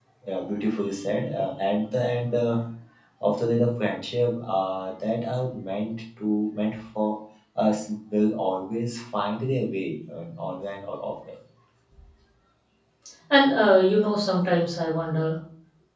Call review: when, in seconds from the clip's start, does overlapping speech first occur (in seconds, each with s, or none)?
none